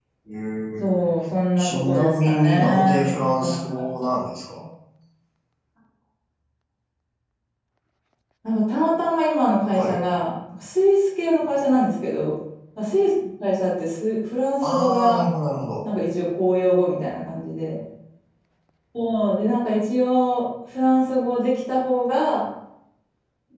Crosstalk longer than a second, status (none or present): present